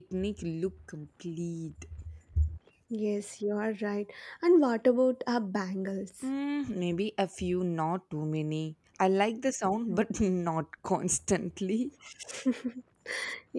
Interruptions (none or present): none